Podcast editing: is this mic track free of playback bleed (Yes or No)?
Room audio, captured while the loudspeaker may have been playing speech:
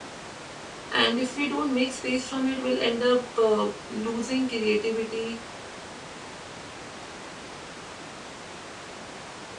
Yes